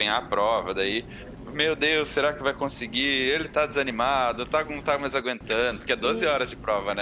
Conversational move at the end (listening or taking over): taking over